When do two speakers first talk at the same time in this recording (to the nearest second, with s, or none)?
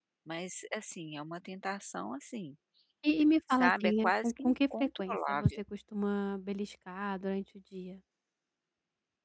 3 s